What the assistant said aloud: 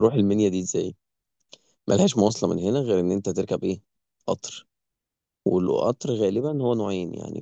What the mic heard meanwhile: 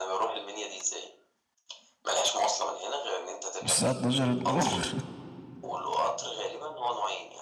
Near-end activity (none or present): present